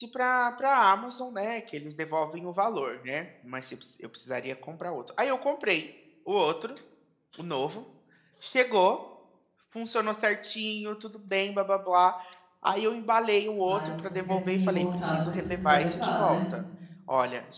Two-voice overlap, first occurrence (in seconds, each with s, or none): 13.6 s